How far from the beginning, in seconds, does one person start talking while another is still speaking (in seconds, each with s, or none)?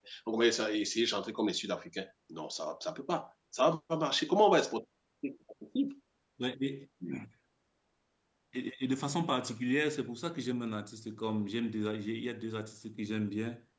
none